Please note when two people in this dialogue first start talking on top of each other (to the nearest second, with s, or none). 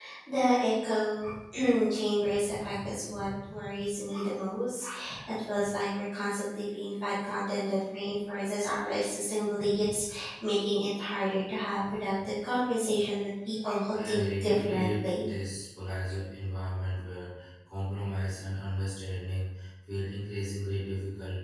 14 s